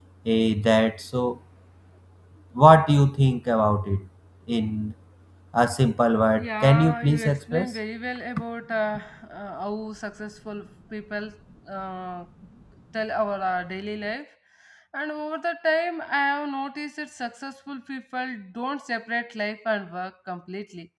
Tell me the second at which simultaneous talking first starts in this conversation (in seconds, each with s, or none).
6.4 s